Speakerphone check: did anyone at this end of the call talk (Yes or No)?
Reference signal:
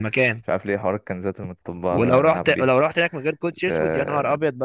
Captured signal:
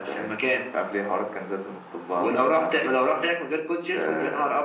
No